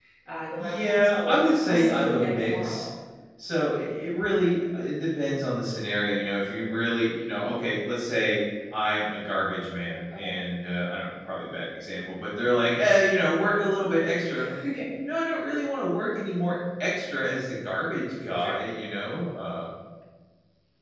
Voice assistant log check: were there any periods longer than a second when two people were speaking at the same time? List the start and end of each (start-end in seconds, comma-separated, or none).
0.6-2.9